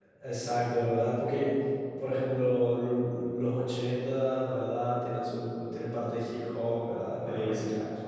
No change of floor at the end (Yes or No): Yes